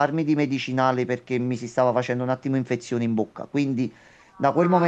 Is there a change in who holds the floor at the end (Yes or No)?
No